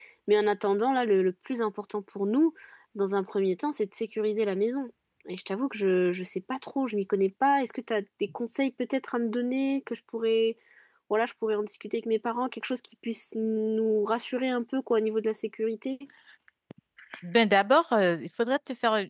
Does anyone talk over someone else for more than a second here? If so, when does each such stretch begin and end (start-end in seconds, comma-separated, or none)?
none